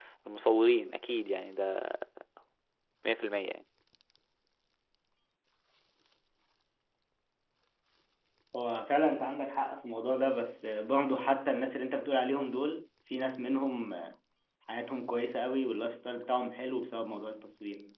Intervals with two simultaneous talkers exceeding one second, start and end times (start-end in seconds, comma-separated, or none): none